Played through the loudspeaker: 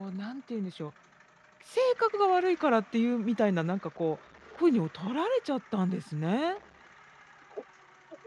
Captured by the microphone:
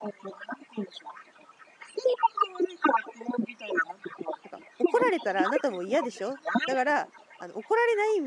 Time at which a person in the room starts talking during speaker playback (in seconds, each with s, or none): 4.5 s